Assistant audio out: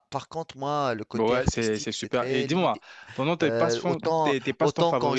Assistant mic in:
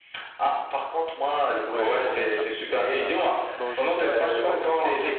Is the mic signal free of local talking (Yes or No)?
No